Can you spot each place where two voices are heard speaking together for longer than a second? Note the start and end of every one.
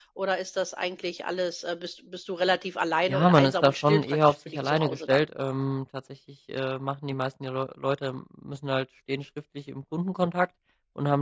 3.1-5.2

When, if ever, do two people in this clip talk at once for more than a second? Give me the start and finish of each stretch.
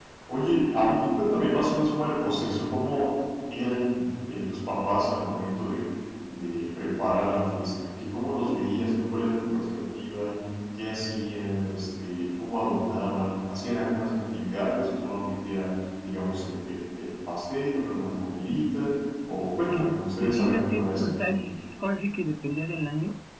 19.7-21.4

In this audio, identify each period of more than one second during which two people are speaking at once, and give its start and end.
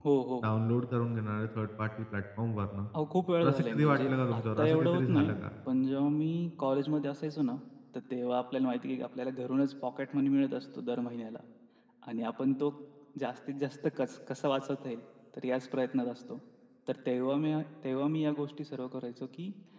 3.4-5.4

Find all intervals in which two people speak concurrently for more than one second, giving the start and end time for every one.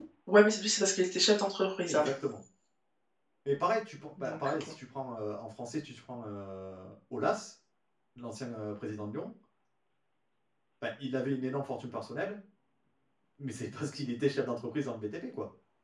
none

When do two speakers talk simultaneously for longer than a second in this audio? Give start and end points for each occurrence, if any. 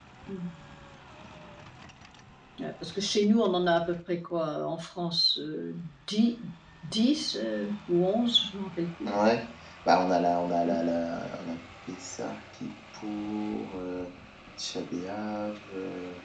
none

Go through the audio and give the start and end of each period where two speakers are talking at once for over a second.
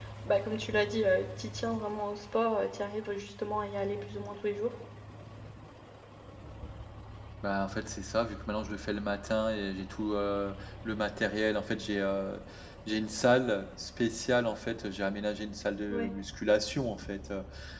none

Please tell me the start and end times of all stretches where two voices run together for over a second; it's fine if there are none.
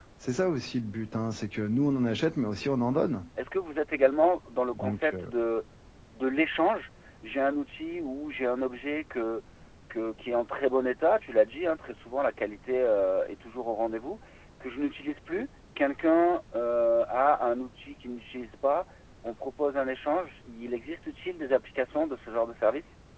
none

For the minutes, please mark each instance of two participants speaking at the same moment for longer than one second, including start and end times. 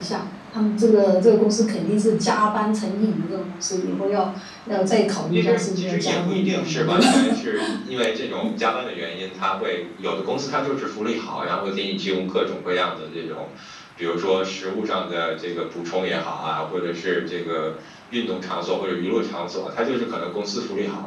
5.3-7.0

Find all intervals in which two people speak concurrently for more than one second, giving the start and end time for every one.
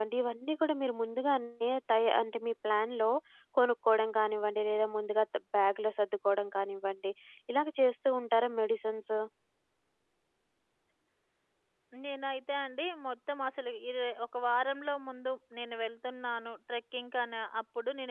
none

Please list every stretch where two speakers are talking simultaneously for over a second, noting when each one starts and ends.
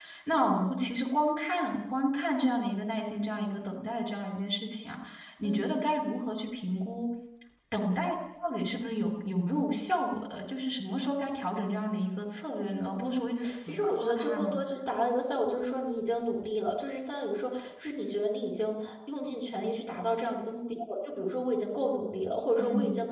12.7-14.5

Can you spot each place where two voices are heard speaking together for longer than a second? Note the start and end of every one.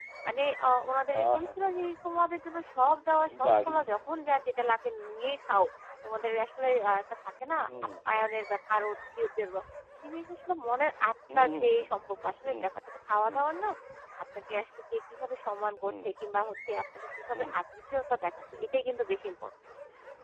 none

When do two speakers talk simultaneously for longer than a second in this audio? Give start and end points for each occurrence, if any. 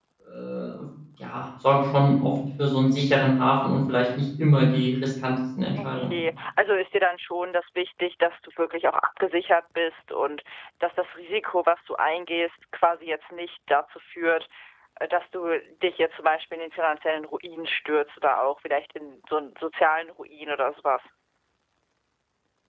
none

